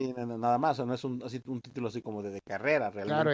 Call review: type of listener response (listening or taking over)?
taking over